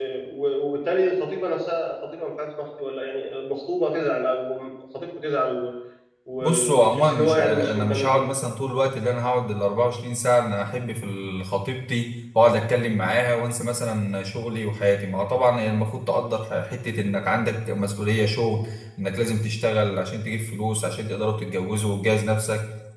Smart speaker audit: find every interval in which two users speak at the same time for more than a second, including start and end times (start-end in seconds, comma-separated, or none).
6.4-8.3